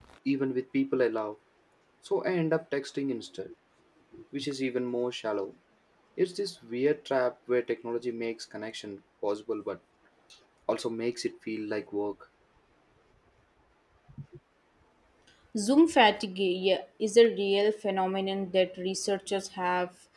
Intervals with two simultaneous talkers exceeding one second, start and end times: none

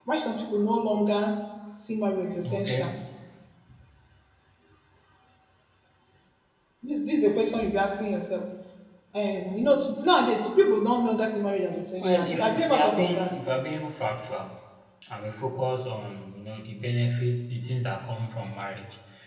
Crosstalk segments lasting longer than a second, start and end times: 12.0-13.3

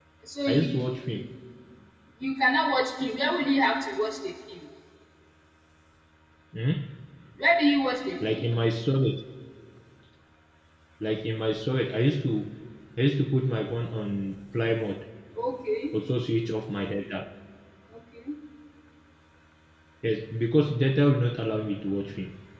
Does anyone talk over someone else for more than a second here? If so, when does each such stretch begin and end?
none

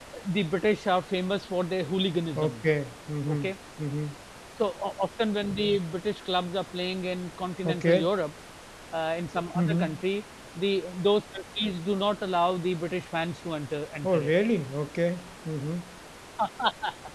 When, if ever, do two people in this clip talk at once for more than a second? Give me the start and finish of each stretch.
none

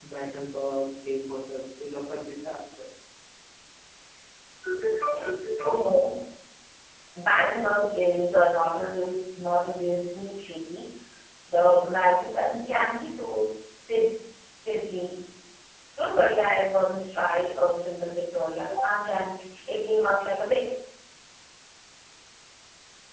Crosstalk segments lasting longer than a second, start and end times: none

